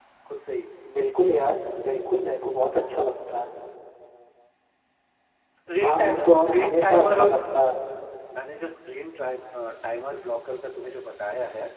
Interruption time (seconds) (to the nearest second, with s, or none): 6 s